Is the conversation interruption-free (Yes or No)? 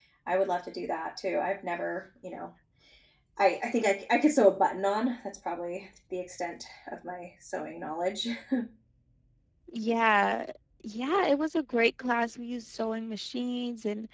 Yes